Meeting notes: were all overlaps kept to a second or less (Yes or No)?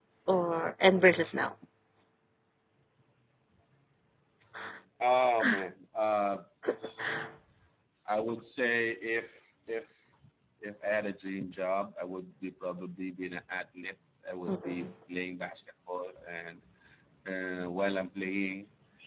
Yes